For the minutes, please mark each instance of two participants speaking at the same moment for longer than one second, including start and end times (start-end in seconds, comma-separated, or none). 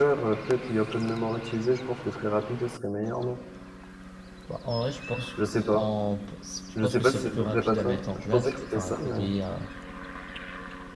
6.8-9.2